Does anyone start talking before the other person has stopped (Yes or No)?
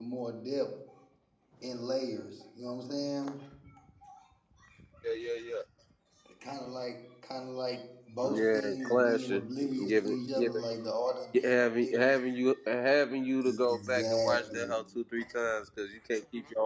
Yes